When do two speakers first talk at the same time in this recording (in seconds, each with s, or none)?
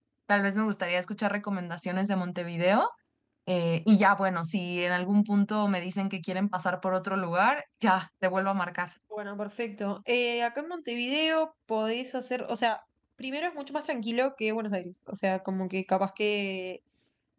none